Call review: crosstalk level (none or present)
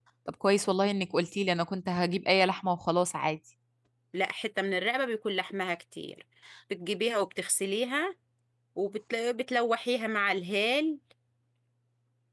none